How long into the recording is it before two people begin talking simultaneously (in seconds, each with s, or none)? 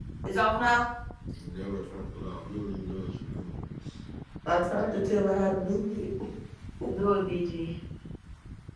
none